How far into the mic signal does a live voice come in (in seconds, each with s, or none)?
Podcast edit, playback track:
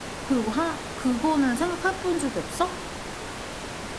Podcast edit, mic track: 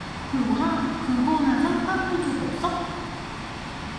none